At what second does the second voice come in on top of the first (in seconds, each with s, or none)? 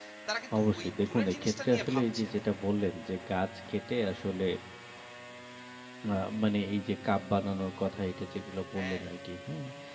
0.6 s